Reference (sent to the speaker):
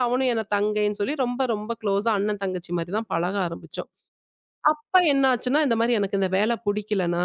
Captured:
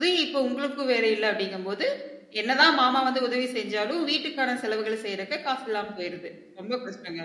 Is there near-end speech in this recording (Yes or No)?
Yes